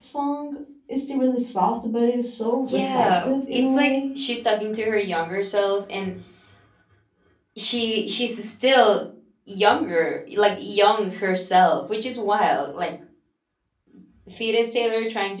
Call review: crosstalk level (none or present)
present